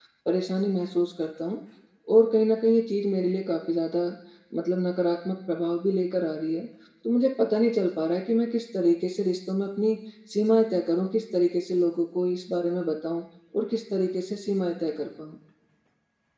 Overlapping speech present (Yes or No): No